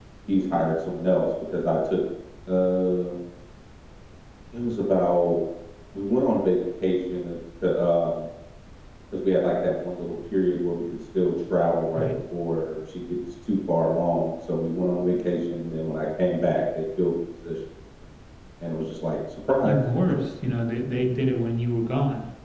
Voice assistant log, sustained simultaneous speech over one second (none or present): none